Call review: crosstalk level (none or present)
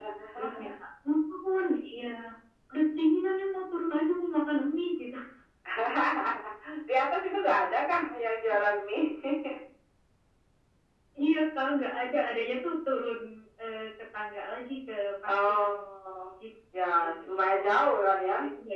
present